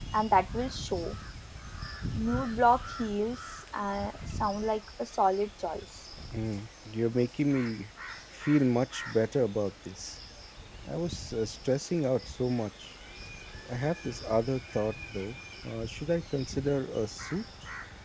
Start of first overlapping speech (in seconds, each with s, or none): none